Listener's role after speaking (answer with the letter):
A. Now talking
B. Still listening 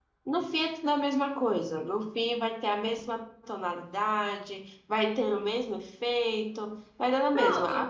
B